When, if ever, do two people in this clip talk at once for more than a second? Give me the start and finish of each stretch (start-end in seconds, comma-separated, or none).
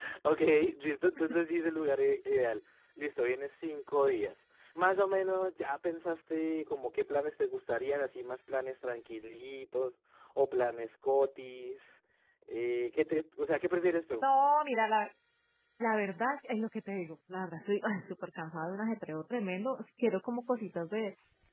none